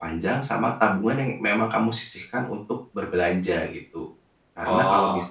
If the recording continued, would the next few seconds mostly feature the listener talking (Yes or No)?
No